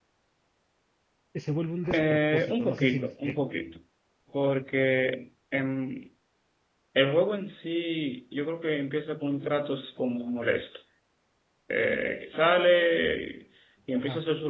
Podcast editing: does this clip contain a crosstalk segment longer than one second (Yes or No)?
Yes